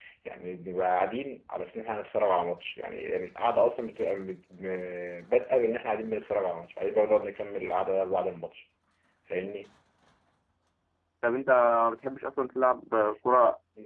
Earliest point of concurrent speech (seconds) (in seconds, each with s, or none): none